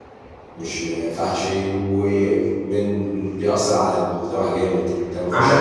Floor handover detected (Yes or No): No